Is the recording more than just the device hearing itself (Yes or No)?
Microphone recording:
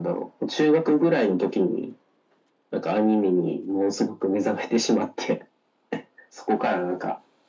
No